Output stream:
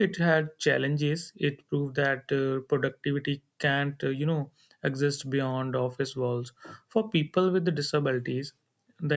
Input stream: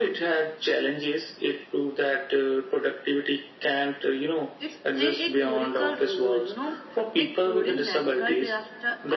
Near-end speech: present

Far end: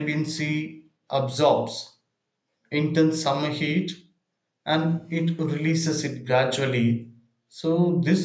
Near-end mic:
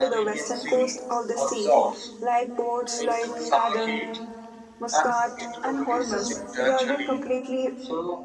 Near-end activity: present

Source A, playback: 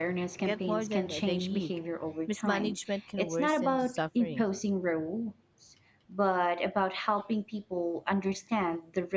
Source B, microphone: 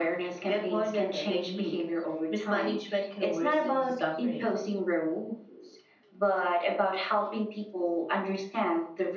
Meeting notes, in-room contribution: none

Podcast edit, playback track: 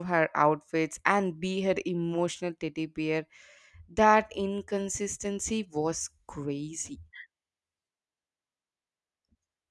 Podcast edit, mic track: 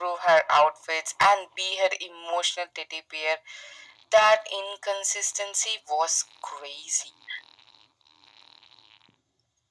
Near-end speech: none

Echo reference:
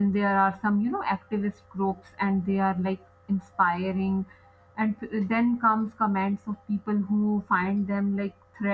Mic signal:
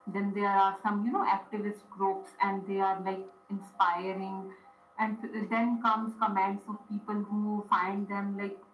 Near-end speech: none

